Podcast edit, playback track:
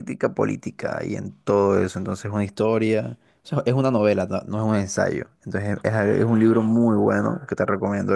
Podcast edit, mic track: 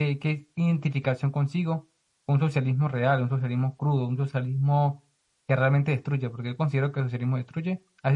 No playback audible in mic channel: Yes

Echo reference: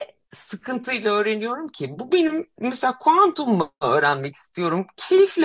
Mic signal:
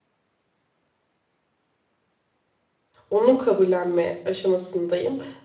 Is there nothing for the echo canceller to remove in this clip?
Yes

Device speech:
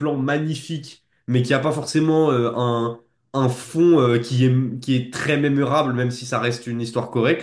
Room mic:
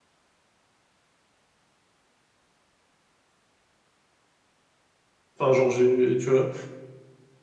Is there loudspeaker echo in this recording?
No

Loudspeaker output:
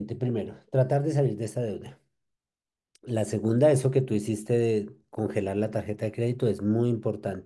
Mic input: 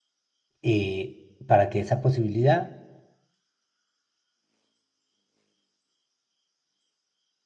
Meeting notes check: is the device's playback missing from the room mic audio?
Yes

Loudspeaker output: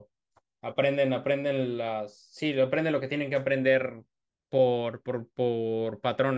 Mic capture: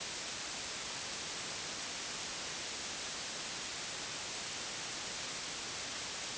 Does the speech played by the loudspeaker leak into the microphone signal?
No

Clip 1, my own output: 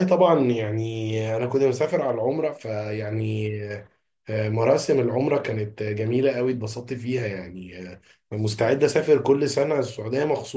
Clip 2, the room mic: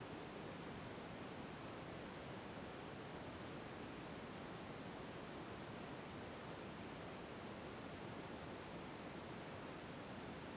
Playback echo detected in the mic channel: No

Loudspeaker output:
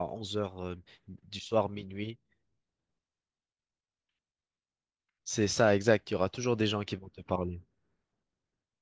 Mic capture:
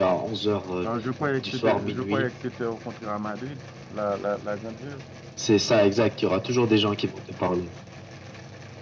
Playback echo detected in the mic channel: Yes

